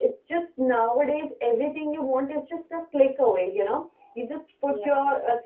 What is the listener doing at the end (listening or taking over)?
listening